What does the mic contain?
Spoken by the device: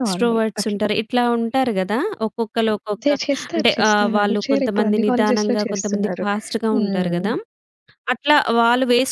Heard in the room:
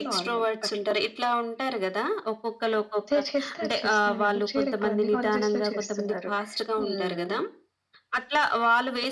echo only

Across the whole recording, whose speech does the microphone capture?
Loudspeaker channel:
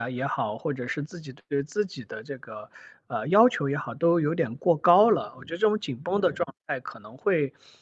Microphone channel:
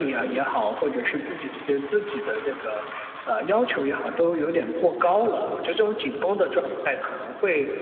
echo only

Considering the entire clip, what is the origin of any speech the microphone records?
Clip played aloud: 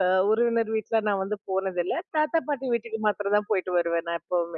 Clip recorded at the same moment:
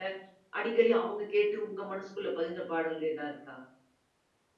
user only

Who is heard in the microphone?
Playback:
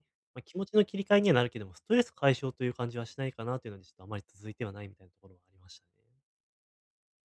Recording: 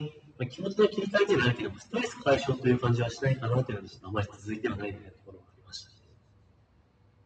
echo only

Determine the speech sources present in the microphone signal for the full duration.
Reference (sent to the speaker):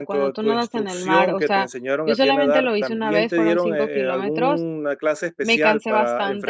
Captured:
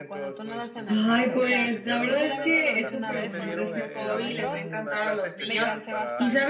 both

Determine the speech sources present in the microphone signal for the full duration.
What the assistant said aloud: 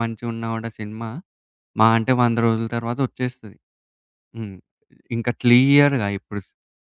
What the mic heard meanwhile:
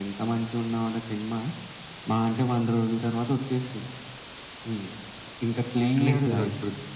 both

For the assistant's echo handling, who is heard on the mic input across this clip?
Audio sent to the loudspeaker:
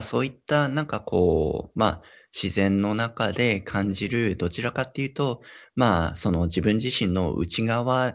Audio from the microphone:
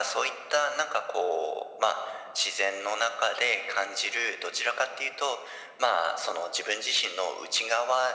echo only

